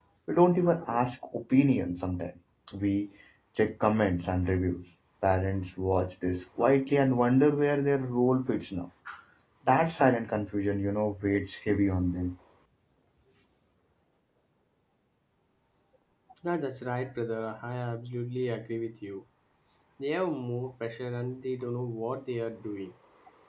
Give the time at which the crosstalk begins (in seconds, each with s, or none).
none